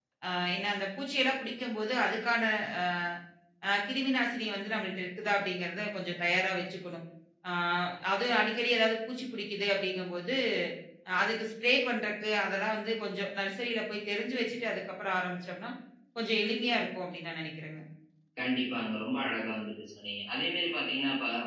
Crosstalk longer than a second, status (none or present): none